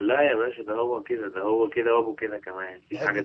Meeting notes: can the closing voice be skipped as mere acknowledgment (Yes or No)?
No